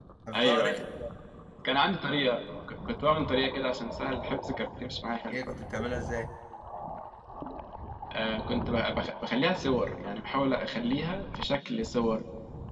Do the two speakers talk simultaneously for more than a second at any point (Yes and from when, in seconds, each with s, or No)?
No